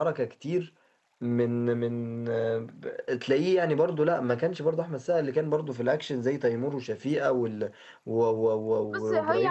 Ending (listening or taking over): taking over